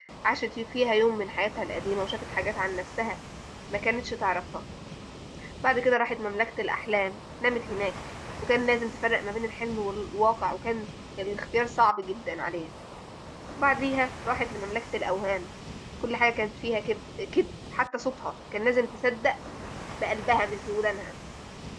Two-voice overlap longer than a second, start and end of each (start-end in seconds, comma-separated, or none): none